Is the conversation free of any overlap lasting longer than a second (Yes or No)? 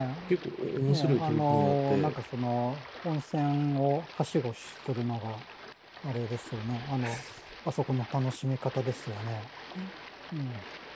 No